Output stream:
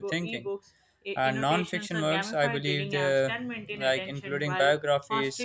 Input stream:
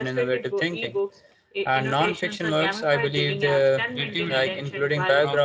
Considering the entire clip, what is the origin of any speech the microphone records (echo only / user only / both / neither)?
both